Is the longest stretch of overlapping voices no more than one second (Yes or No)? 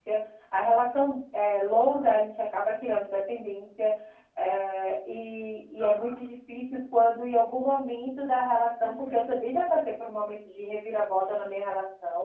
Yes